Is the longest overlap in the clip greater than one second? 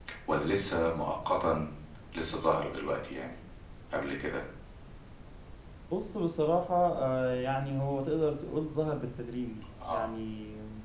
No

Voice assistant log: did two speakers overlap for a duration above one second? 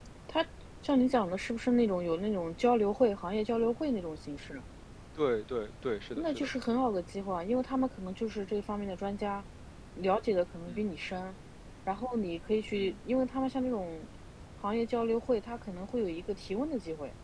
No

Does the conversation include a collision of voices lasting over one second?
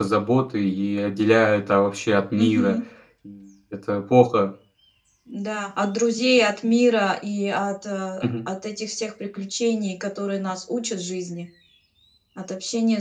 No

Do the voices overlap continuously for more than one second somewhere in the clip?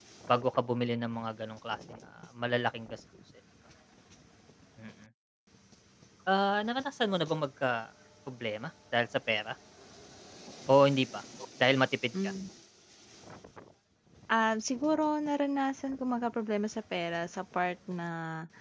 No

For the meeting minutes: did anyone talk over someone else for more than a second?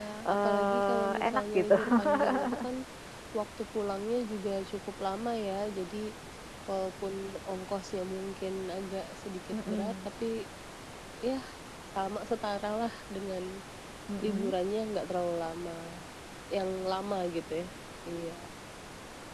Yes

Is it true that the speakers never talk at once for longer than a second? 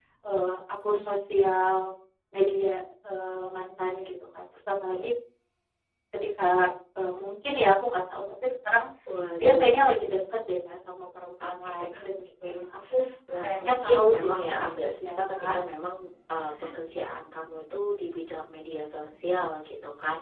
No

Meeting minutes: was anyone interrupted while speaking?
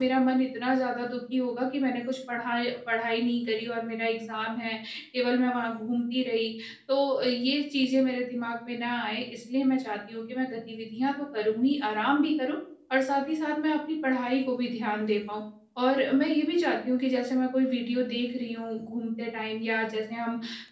No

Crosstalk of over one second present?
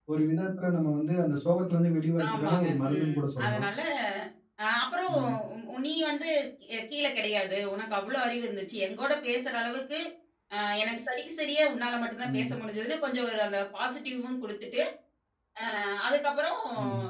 Yes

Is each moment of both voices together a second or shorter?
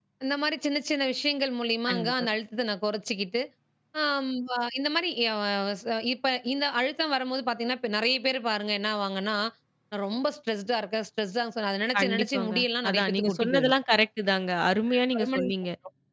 No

